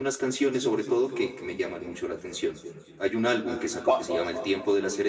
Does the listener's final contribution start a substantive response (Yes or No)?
No